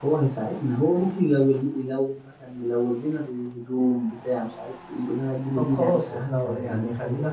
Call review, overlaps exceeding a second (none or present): present